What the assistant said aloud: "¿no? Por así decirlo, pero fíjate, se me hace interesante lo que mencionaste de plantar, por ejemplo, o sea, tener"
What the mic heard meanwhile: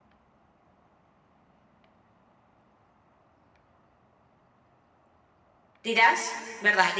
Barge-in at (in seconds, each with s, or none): 5.8 s